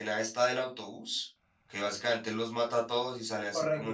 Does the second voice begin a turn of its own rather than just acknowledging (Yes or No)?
No